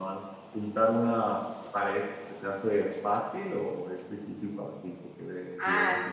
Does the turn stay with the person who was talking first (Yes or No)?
No